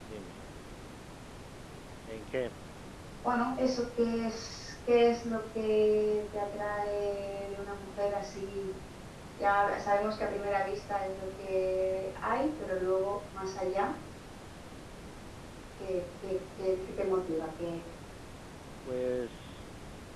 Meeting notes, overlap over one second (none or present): none